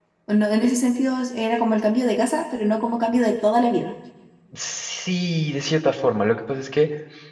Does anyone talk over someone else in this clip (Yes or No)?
No